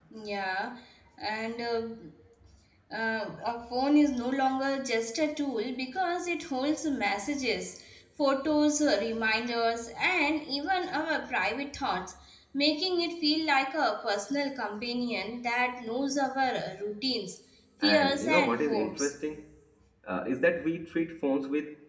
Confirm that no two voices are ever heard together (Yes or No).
No